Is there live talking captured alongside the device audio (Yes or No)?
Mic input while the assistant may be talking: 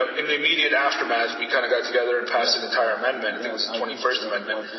Yes